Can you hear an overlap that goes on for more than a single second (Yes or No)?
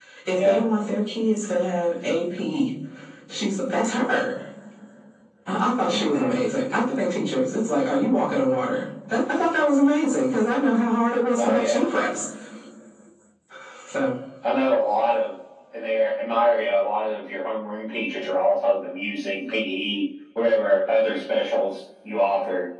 No